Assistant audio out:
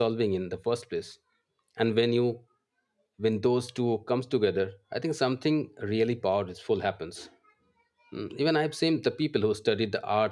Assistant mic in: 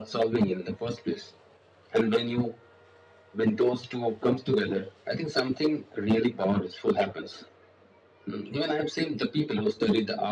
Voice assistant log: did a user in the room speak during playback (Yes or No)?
No